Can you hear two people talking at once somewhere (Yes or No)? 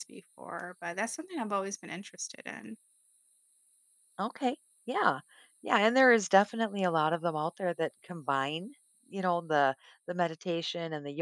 No